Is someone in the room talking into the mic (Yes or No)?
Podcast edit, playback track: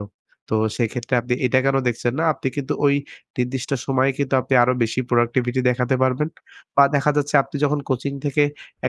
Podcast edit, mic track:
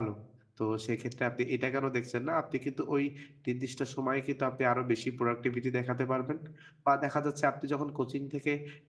No